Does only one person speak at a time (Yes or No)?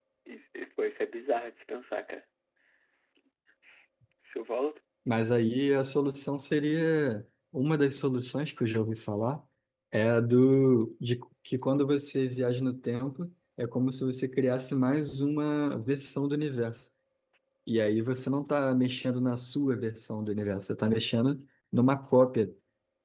Yes